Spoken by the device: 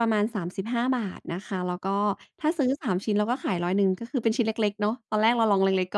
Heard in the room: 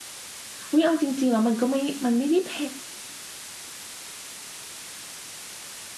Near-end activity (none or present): present